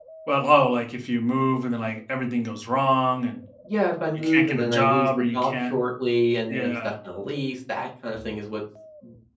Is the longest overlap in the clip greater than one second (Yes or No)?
Yes